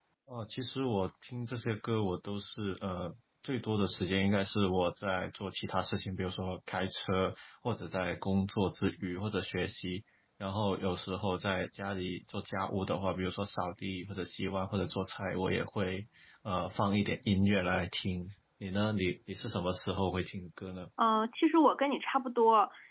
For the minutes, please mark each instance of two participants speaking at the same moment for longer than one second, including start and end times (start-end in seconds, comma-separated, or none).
none